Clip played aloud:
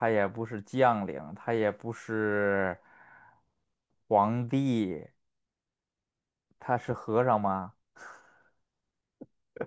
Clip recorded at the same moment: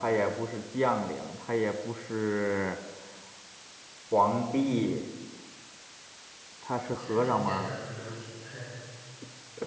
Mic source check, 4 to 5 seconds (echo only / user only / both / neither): echo only